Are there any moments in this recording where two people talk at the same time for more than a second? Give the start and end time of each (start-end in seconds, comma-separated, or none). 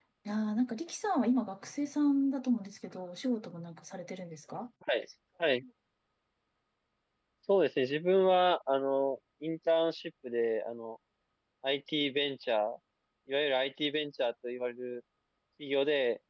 none